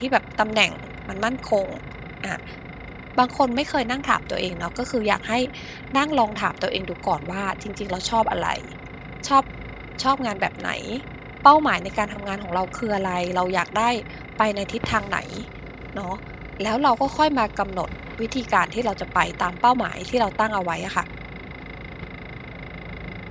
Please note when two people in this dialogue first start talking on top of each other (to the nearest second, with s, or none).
none